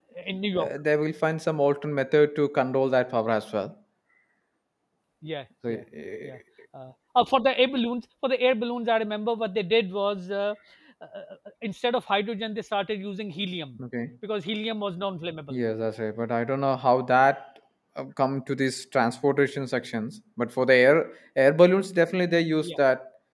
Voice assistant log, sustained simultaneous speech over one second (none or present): none